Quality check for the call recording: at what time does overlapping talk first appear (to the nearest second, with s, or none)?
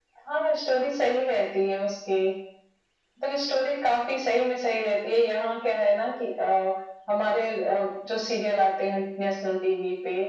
none